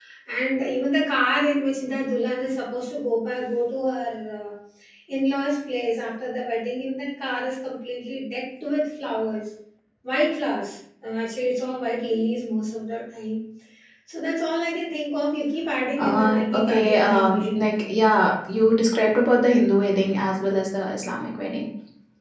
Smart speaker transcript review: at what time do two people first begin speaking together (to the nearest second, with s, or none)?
16 s